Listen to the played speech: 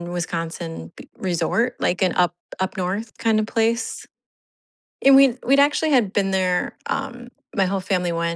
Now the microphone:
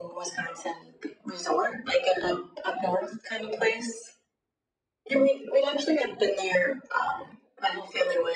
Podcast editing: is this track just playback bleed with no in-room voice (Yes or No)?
Yes